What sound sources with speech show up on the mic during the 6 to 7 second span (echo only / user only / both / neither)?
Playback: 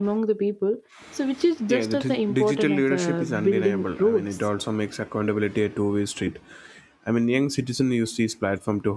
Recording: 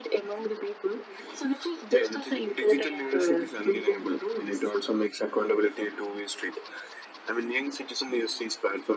echo only